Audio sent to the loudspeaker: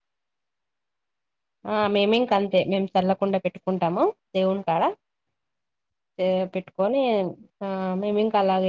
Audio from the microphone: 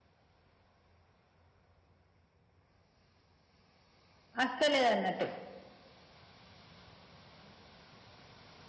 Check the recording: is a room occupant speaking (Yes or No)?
Yes